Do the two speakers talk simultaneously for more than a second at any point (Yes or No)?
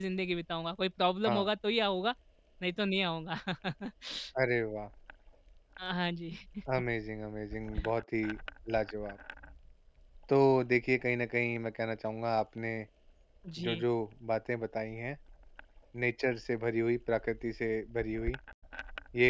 No